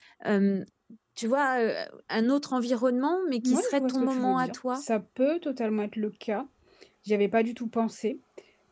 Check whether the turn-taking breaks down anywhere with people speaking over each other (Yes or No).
Yes